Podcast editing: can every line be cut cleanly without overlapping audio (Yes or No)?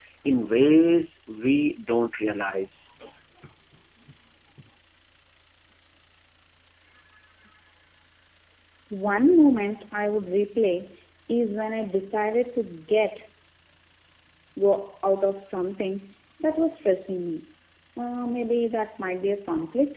Yes